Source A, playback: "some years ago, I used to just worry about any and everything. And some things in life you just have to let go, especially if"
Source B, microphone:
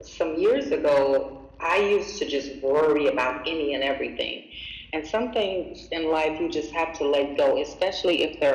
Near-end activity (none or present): none